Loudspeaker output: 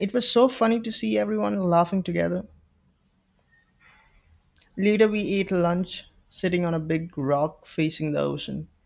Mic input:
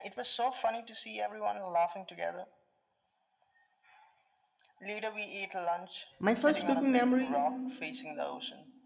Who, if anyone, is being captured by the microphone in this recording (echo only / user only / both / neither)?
both